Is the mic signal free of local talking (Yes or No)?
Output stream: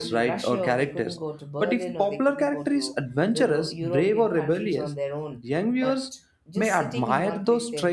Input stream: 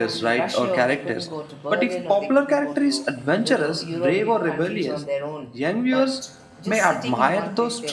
Yes